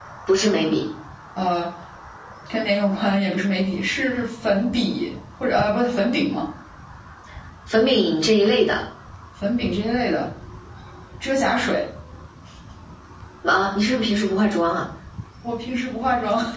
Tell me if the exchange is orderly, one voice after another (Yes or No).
Yes